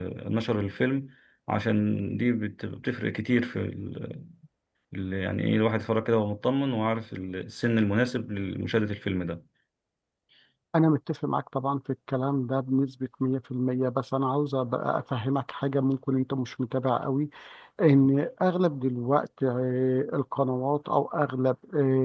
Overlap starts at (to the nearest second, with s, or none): none